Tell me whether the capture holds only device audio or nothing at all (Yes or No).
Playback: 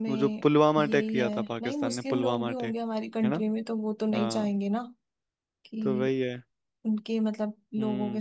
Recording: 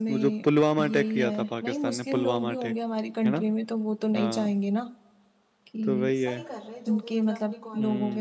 No